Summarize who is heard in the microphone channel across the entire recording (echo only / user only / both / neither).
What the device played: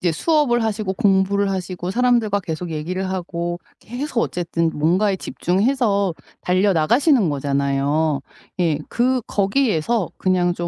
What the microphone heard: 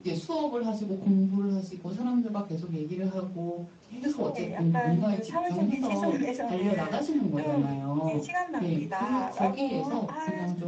both